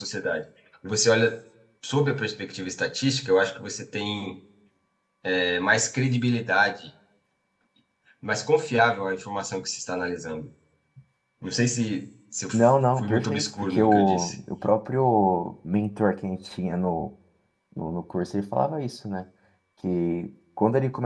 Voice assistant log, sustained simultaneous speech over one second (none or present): present